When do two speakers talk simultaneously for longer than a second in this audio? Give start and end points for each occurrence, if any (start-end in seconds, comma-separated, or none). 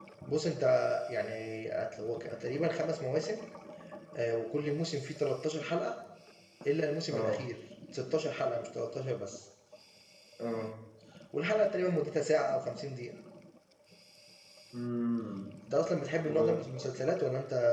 none